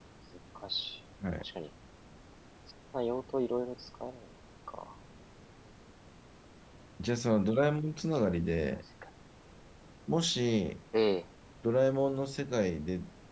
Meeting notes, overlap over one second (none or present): none